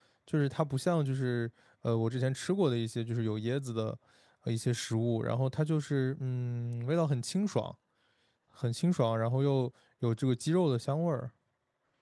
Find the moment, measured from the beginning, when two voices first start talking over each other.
none

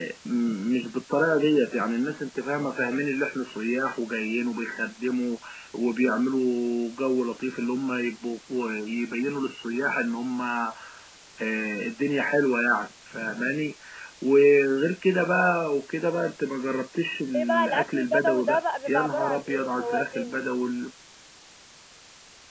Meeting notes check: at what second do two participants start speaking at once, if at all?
17.3 s

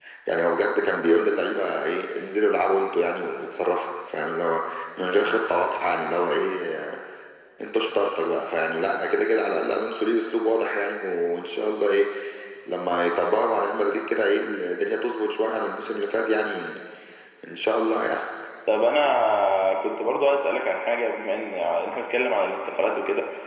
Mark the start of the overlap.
none

